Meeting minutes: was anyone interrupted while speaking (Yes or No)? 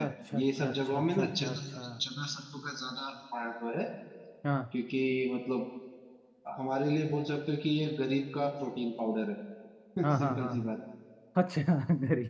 Yes